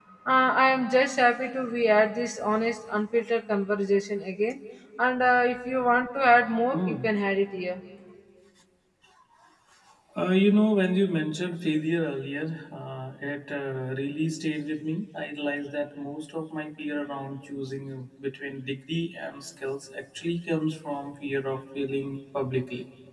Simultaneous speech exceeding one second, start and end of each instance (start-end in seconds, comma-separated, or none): none